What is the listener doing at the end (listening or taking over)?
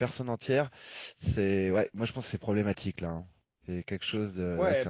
taking over